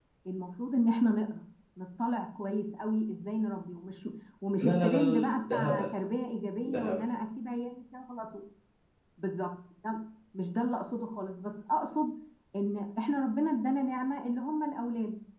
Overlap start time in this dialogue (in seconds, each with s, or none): 4.5 s